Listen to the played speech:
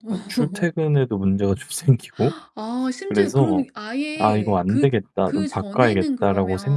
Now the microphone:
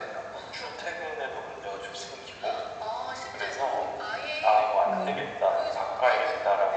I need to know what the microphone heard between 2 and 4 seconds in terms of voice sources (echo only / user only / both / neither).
echo only